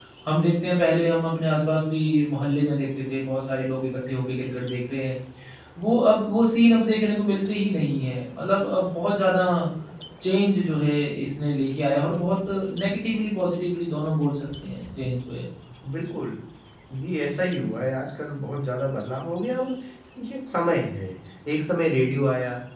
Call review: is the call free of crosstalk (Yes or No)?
Yes